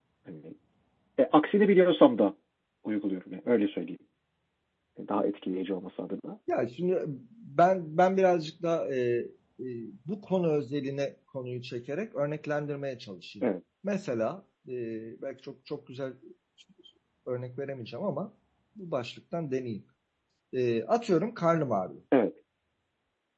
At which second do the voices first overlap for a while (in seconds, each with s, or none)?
none